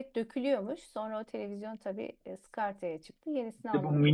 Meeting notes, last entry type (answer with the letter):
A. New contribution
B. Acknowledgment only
A